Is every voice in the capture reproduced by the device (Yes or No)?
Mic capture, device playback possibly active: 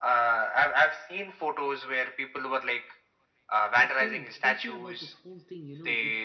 No